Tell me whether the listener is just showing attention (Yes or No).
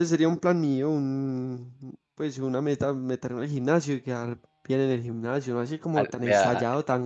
Yes